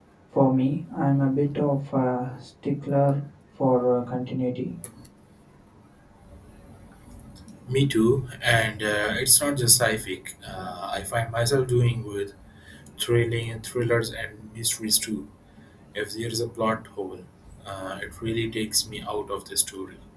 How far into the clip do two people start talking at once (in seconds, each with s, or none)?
none